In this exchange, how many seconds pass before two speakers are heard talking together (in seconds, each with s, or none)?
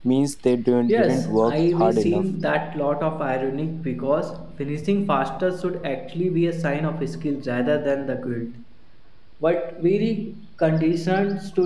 0.9 s